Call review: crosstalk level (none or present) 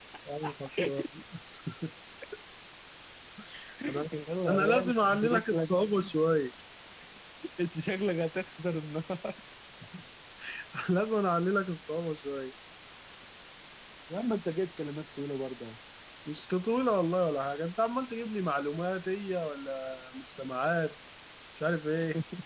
present